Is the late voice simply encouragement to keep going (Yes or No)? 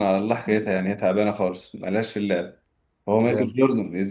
Yes